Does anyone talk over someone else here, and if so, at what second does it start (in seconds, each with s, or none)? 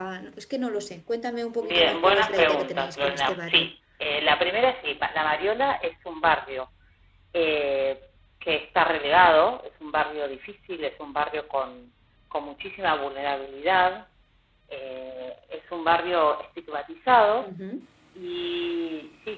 1.6 s